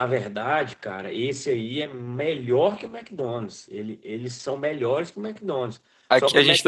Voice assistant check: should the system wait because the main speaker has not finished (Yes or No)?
No